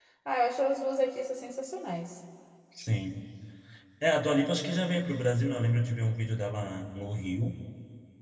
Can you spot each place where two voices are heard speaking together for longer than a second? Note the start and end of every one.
none

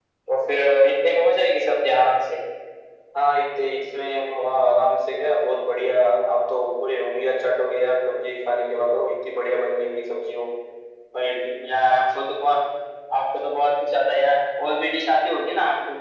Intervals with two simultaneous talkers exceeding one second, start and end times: none

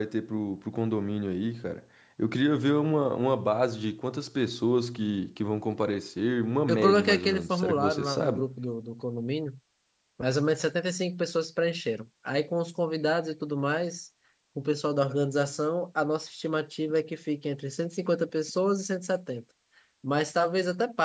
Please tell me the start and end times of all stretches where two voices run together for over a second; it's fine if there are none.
6.7-8.4

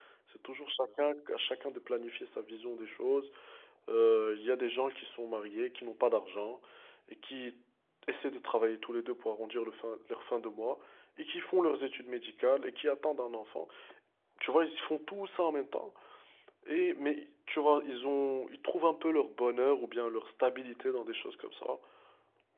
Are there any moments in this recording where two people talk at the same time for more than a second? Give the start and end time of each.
none

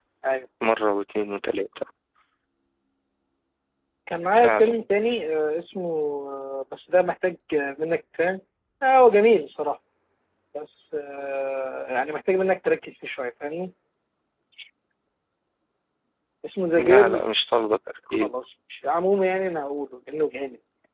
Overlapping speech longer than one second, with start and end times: none

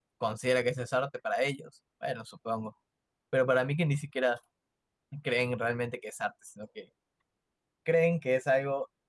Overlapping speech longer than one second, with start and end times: none

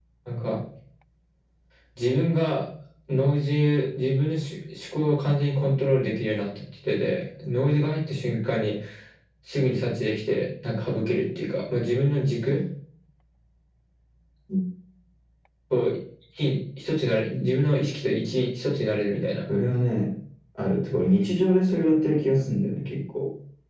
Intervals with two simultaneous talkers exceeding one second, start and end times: none

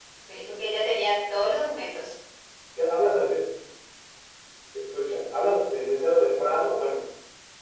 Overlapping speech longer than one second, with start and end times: none

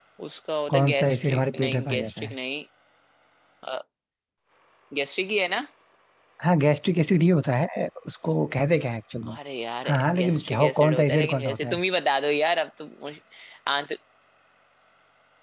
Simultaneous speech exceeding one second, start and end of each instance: 0.7-2.3, 9.8-11.8

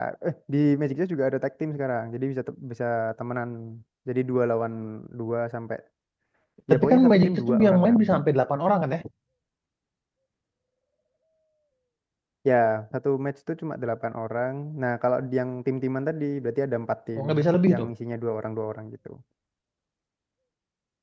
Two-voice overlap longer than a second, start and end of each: 6.7-8.2

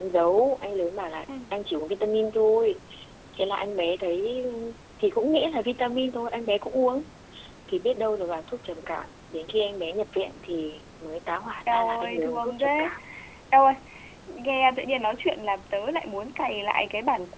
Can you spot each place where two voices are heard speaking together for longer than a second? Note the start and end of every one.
11.6-12.9

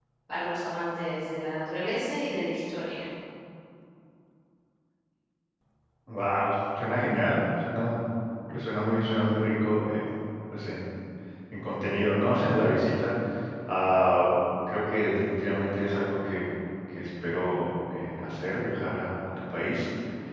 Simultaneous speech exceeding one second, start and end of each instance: none

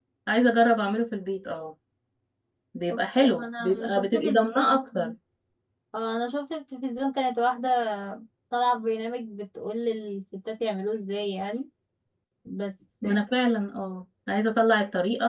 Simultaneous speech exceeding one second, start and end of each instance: 3.4-5.1

